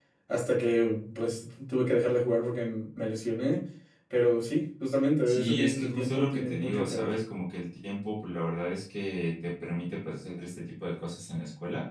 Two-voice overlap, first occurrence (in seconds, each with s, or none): 5.2 s